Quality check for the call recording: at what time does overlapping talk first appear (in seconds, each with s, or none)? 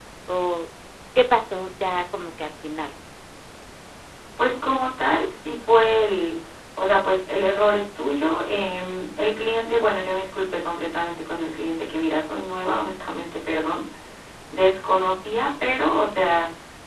none